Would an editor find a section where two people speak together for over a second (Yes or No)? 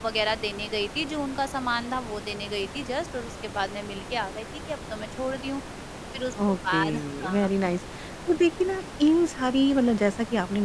Yes